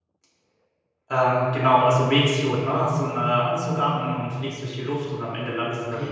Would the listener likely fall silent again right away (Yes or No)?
Yes